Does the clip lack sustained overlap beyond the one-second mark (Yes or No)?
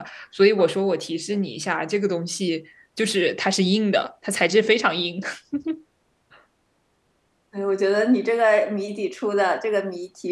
Yes